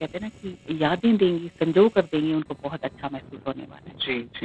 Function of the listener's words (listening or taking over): taking over